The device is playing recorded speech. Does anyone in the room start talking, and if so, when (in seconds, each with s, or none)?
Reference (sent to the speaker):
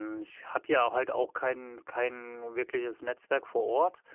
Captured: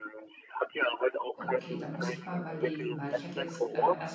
1.3 s